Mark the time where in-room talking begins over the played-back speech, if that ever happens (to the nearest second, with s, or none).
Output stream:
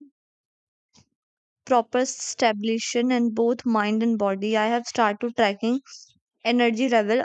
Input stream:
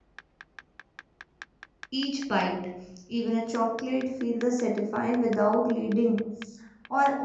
2 s